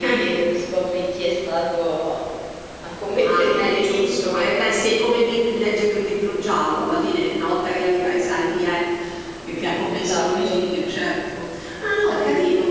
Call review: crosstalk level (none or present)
present